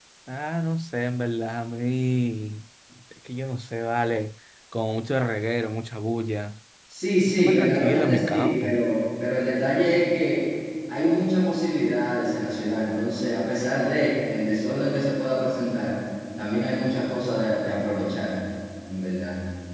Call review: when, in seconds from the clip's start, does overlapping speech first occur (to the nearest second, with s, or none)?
7 s